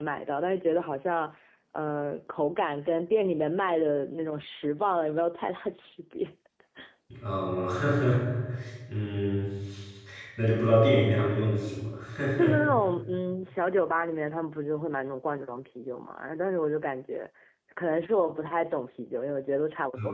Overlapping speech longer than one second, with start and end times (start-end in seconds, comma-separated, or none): none